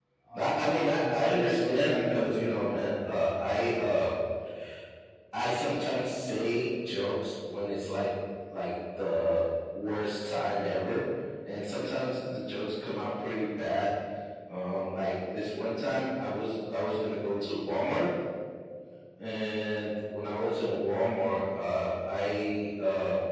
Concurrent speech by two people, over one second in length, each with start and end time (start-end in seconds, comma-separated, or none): 1.0-2.3